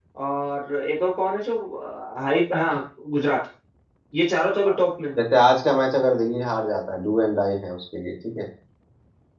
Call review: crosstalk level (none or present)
none